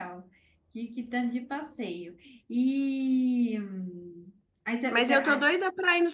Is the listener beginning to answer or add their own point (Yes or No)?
Yes